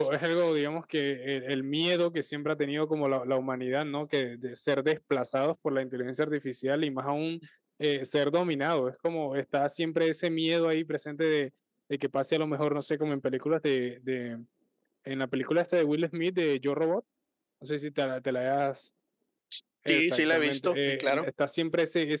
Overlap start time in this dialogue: 20 s

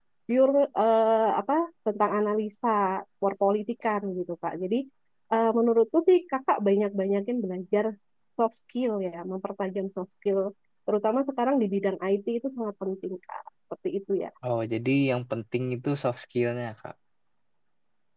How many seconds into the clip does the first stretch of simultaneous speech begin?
none

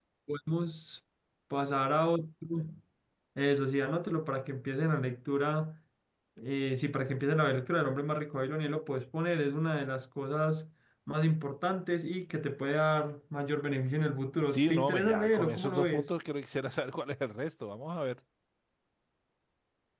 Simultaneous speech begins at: 14 s

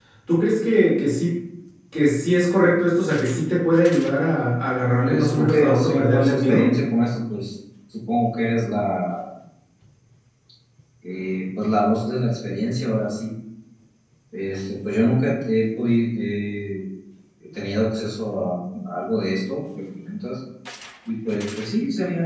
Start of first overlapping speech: 5 s

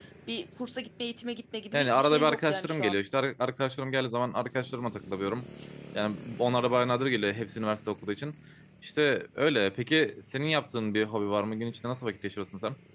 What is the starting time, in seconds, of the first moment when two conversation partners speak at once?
2 s

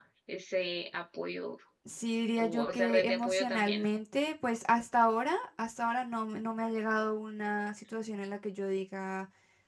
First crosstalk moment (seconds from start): 2 s

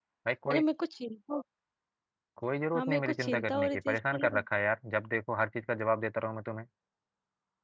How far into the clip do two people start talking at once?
3 s

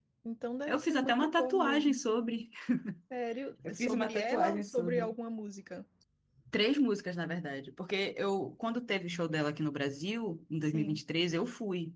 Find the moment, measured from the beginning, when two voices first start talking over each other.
1 s

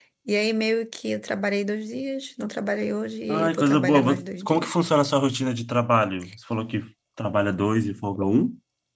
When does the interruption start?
3 s

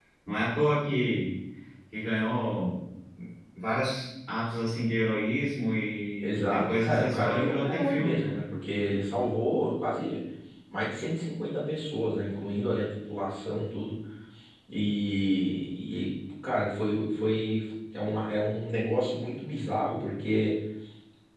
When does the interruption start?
6 s

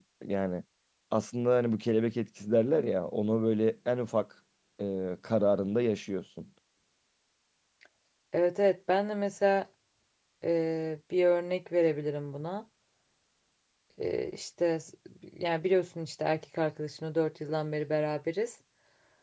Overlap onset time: none

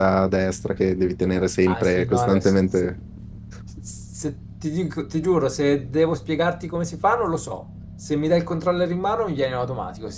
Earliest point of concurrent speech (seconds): 2 s

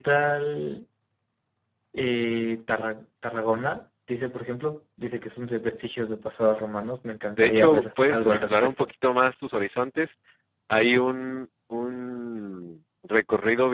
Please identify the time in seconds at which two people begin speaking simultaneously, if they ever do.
7 s

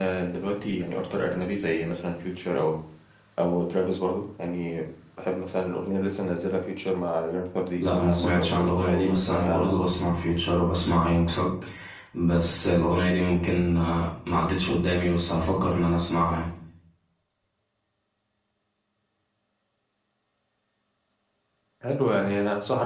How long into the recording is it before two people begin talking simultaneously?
8 s

